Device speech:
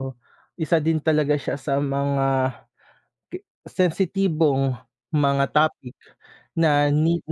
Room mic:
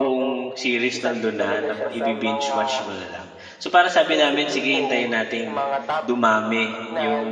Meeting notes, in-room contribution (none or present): present